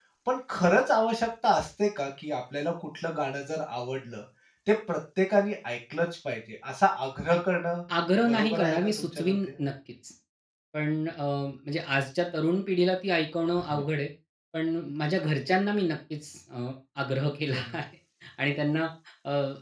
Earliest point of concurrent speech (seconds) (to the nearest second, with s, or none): 8 s